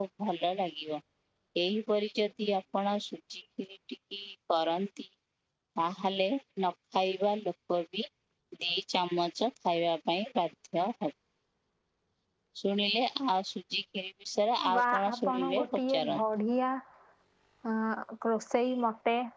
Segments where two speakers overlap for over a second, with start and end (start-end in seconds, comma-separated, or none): 14.7-16.2